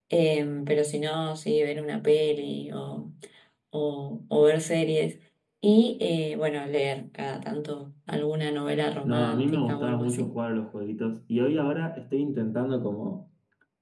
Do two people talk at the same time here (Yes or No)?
Yes